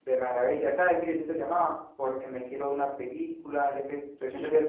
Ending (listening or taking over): listening